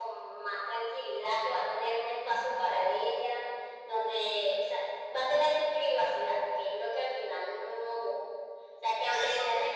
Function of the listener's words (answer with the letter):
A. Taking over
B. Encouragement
B